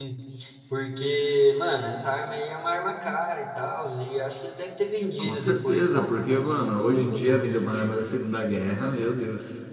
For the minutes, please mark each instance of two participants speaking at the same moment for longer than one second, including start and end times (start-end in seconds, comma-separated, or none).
5.2-8.0